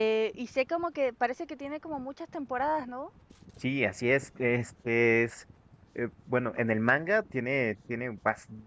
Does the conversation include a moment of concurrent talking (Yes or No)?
No